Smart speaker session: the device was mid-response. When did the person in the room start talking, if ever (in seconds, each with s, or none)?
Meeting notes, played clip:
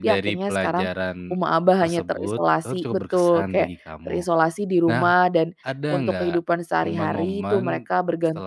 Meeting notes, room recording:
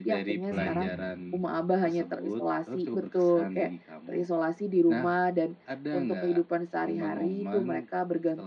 0.5 s